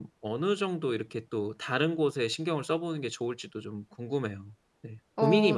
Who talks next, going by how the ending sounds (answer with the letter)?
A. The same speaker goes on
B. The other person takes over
B